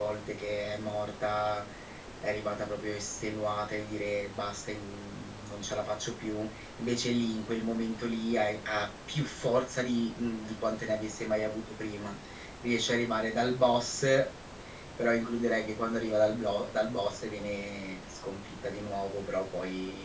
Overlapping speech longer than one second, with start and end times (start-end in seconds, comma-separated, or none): none